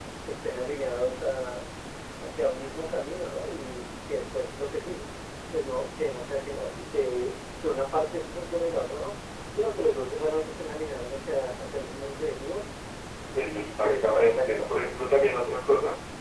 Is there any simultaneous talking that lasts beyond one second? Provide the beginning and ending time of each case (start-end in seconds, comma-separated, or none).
13.4-14.6